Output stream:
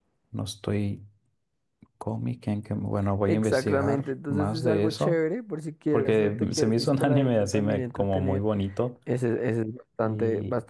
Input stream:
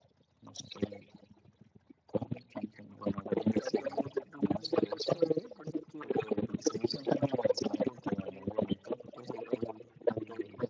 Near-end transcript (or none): none